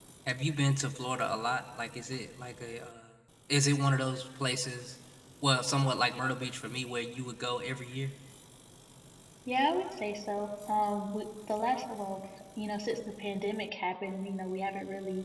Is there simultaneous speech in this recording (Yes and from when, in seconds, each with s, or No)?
No